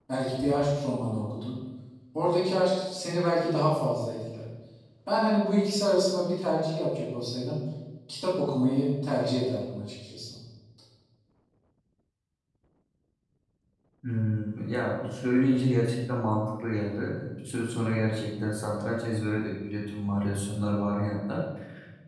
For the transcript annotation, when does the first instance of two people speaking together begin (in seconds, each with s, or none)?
none